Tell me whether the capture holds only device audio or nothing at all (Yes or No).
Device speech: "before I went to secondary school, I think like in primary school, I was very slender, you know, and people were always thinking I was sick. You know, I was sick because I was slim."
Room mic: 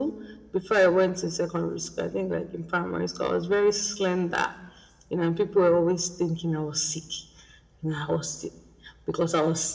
Yes